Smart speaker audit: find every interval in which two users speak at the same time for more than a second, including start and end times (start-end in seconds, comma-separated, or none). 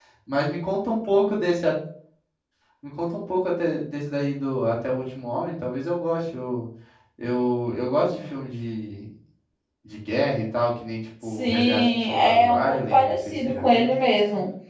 11.4-13.9